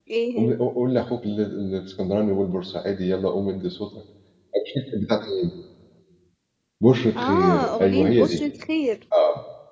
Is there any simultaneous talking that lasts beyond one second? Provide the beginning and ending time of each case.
7.2-8.4

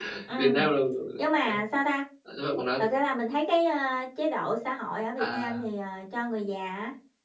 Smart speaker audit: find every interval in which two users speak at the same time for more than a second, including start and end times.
none

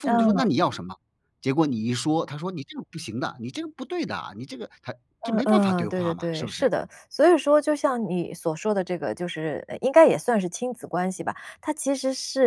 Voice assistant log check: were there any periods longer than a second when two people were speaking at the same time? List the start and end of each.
5.2-6.7

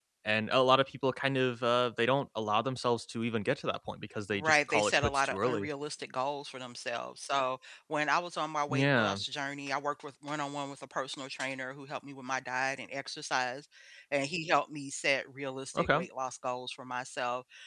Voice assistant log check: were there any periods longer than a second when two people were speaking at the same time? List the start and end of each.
4.3-5.7

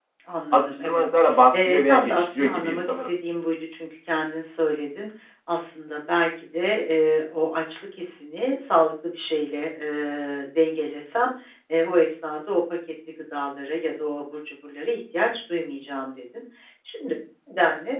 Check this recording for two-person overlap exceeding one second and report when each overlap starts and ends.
1.5-3.1

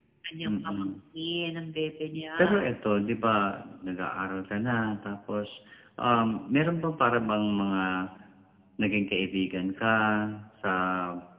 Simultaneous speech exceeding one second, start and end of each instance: none

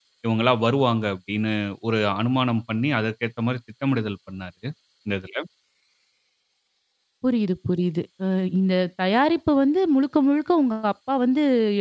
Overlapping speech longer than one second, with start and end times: none

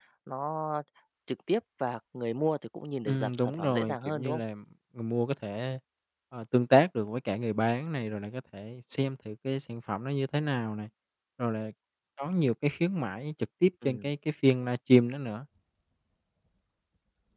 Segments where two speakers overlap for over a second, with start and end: 3.1-4.4

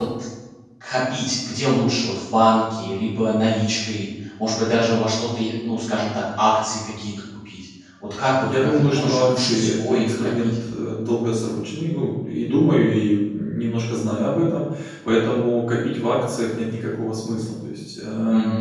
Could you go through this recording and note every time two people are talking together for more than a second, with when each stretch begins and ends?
8.4-10.5

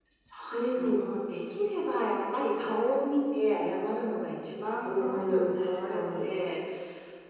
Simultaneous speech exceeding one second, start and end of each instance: 4.8-6.3

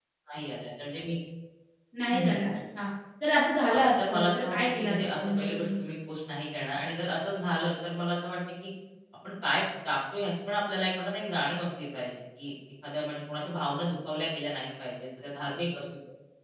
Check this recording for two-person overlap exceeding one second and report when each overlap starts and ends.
3.7-5.8

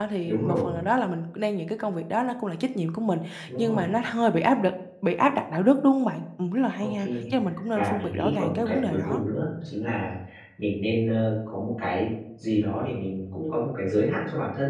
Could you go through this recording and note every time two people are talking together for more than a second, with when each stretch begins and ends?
7.7-9.2

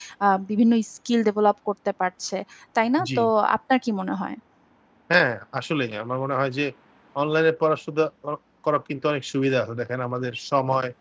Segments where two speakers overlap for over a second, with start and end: none

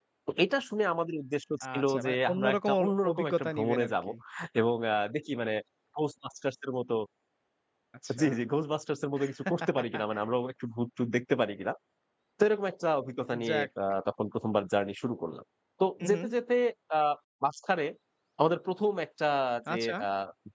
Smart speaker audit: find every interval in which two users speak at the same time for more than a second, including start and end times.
1.6-4.1

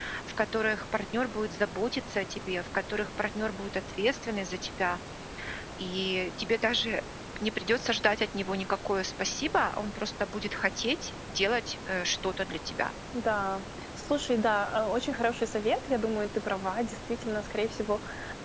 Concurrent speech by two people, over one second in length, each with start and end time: none

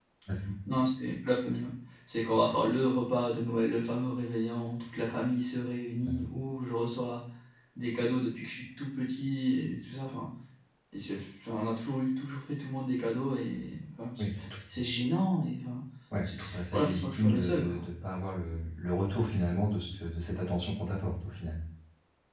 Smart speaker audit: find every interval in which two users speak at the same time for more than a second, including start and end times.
16.2-17.8

